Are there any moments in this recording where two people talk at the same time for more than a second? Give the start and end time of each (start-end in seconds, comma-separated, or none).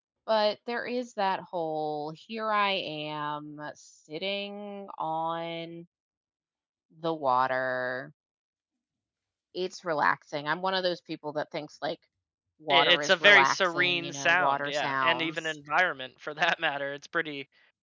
12.7-15.6